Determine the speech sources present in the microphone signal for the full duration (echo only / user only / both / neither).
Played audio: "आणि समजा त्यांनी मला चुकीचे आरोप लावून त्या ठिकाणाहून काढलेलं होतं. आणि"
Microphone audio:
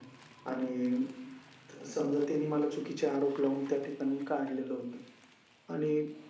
echo only